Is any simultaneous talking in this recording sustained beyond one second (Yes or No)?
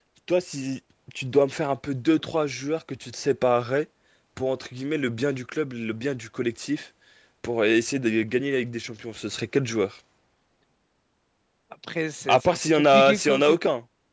Yes